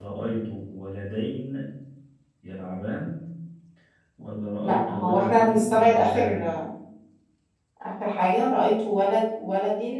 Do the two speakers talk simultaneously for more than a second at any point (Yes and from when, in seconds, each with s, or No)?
Yes, from 4.6 s